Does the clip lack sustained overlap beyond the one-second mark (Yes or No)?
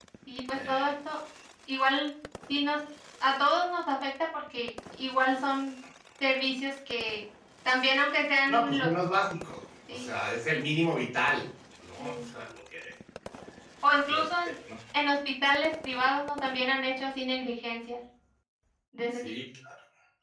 Yes